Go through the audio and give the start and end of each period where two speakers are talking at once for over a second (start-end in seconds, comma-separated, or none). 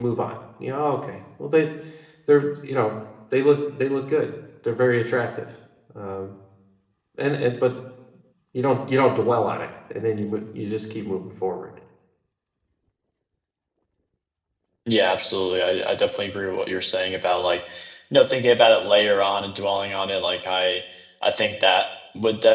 none